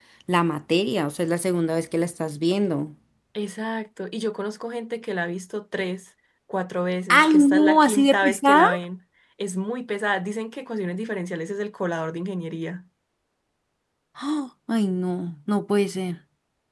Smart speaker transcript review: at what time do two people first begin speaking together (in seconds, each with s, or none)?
7.1 s